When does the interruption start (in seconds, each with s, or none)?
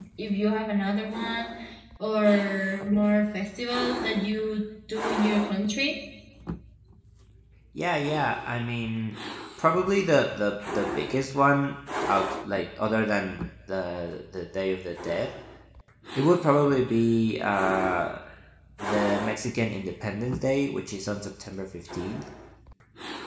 none